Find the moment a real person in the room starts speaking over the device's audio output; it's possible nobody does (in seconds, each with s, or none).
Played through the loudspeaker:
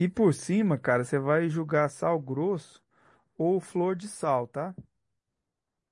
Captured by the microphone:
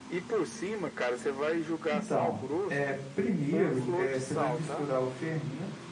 1.9 s